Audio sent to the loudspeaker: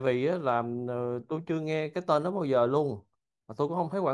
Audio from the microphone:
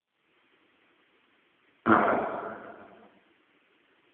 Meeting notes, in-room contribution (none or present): present